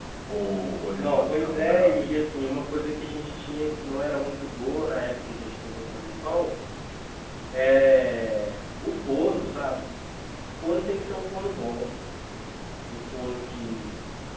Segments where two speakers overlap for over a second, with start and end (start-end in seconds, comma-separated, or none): 0.9-2.2